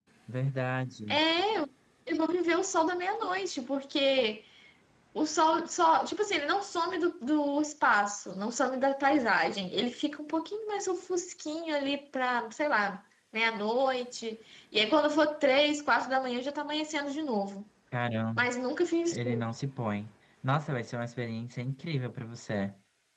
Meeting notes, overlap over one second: none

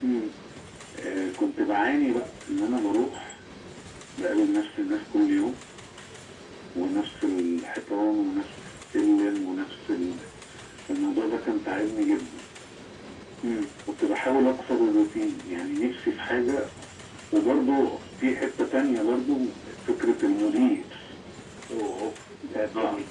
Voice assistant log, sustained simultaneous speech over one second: none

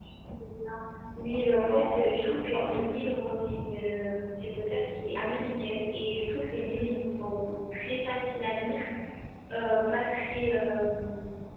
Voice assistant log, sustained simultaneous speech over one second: present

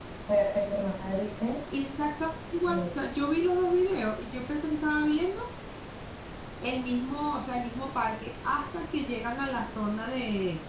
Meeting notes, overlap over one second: none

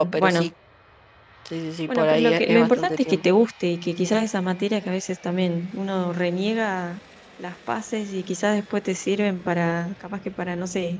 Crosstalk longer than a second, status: present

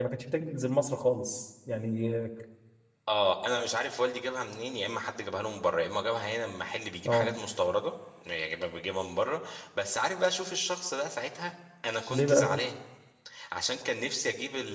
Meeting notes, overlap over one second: none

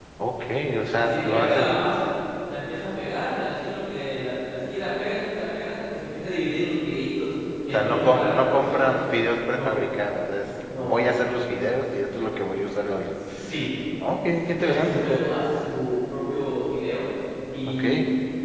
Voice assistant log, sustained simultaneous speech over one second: present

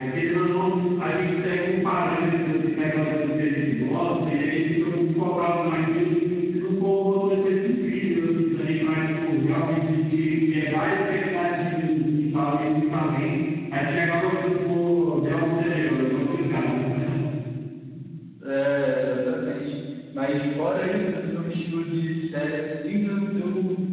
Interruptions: none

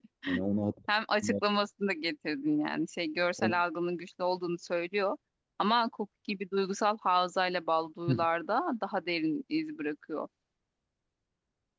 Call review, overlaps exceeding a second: none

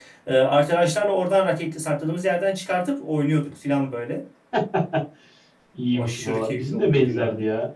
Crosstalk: present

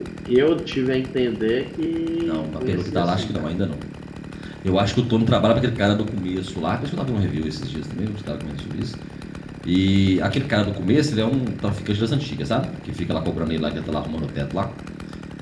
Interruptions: present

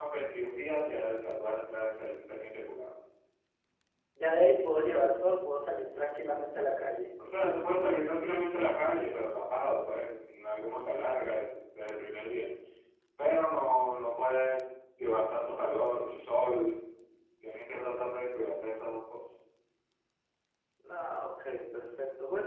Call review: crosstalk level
none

